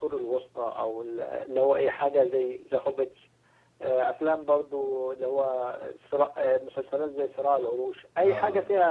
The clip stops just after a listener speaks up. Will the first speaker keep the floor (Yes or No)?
Yes